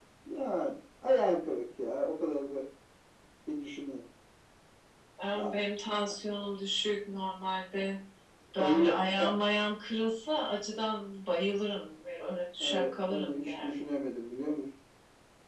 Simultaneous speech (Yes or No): Yes